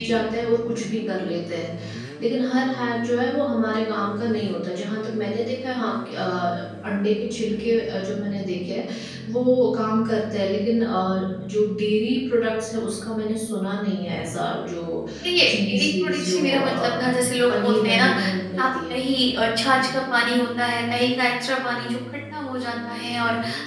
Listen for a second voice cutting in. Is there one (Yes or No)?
Yes